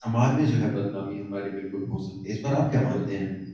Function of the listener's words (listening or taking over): taking over